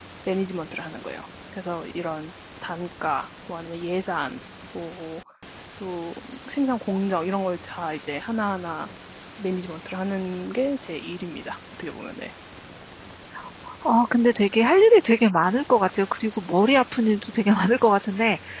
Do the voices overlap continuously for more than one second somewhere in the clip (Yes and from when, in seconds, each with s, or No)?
No